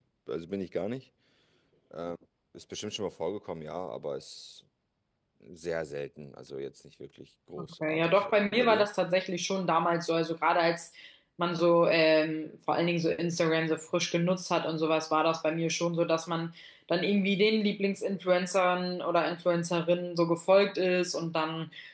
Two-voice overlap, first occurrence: 7.6 s

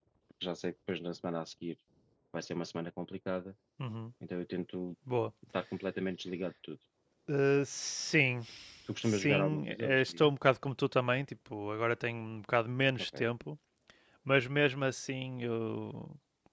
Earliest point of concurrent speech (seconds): 9.0 s

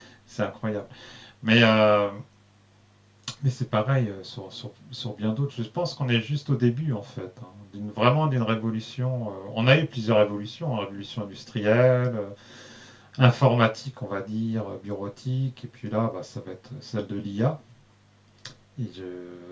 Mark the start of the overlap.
none

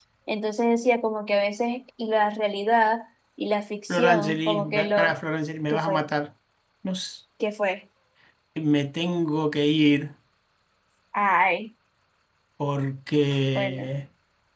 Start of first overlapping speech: 3.9 s

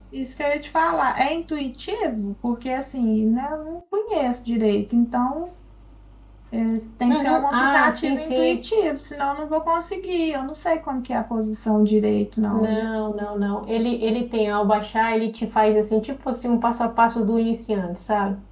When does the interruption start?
7.1 s

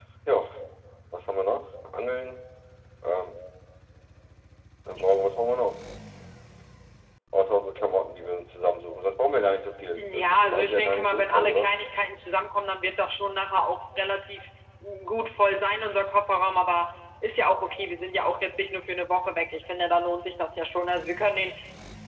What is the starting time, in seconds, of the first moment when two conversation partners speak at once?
9.9 s

